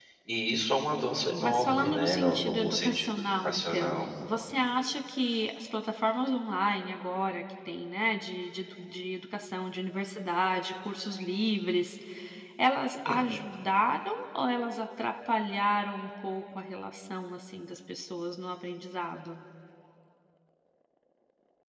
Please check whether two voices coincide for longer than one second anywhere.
Yes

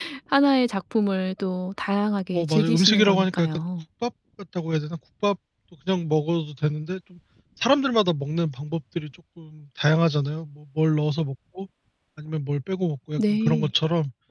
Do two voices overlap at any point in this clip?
Yes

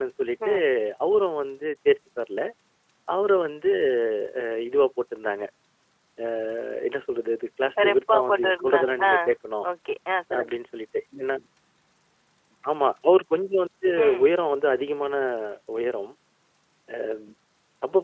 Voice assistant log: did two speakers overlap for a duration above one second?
Yes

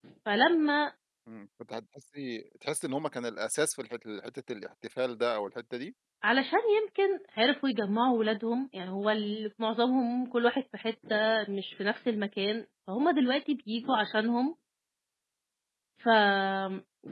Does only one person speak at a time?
Yes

